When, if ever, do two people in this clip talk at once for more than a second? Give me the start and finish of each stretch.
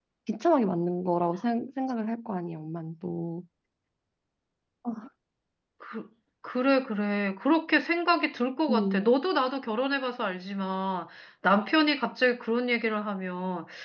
none

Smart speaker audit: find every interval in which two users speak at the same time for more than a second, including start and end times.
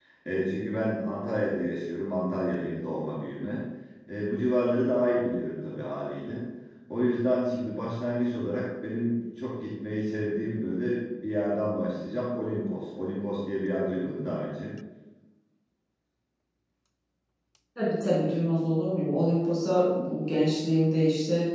none

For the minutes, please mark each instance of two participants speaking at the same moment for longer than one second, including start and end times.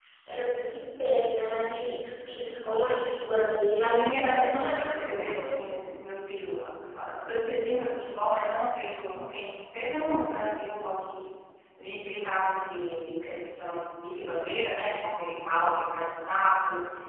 3.8-5.4

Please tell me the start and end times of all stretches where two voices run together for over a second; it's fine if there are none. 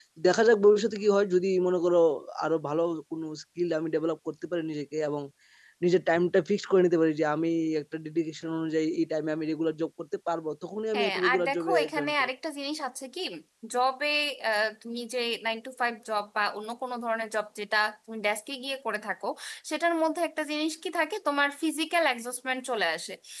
10.9-12.3

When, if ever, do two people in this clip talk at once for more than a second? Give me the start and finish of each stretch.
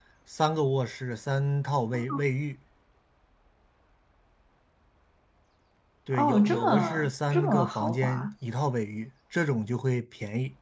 6.1-8.3

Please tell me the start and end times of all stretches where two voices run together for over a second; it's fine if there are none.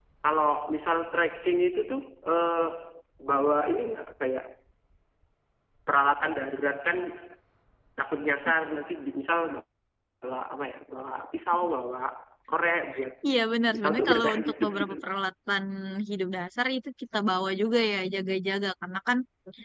13.7-15.0

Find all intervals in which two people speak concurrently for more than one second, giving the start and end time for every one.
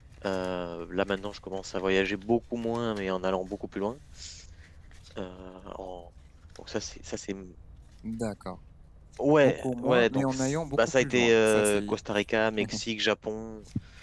9.4-12.0

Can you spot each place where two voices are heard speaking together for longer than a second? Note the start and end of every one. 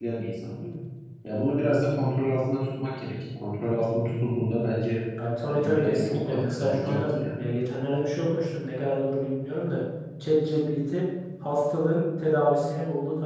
5.4-7.4

